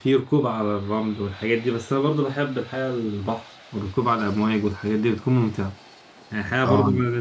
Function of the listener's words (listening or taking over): listening